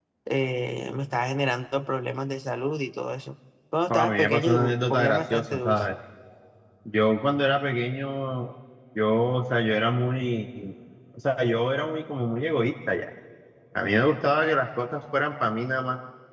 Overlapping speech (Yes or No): Yes